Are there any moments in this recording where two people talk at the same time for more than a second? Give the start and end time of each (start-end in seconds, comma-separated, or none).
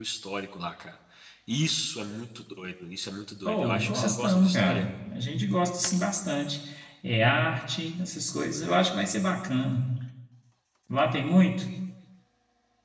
3.5-4.8